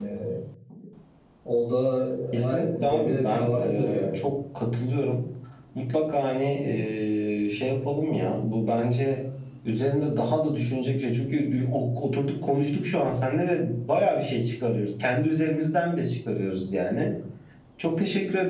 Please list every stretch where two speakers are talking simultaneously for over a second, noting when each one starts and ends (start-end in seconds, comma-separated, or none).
2.3-4.2